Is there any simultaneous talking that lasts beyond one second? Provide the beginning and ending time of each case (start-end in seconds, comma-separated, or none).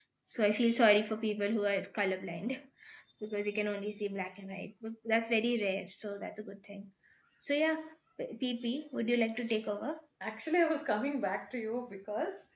none